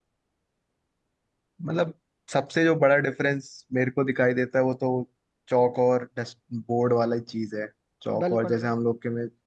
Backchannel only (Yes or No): Yes